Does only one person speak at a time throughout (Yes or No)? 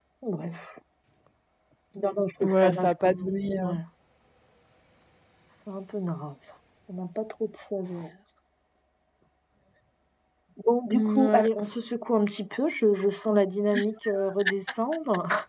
No